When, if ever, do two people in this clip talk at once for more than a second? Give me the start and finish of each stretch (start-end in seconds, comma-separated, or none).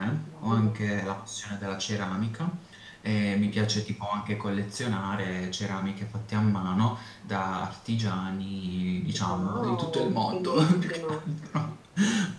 9.2-11.2